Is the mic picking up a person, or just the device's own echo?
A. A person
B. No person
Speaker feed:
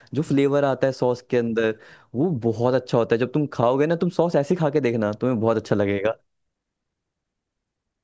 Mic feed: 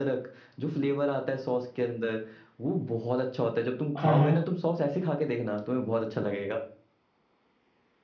A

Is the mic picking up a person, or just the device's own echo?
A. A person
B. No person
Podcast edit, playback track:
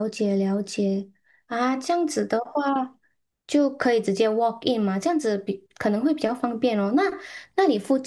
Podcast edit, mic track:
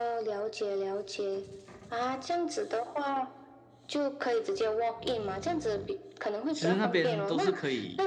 A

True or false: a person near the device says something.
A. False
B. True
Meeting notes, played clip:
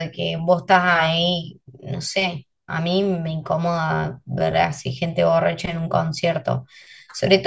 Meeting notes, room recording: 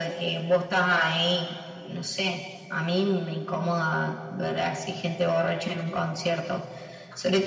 A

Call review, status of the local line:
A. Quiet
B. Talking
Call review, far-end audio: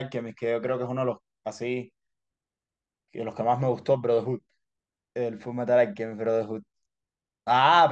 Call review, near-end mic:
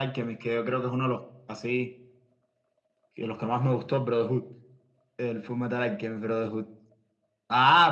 A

